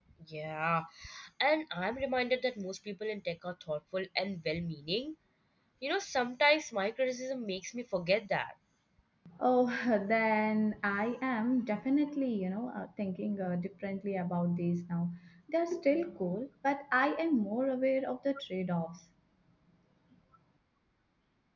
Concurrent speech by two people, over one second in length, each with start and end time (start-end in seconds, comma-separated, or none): none